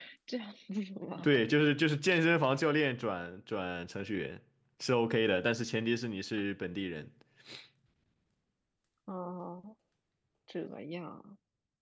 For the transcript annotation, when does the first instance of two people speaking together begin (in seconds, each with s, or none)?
none